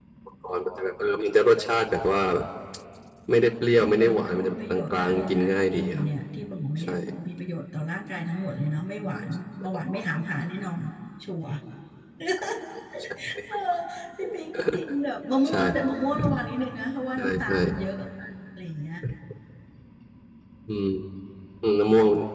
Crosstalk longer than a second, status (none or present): present